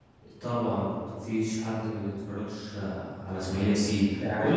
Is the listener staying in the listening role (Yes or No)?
Yes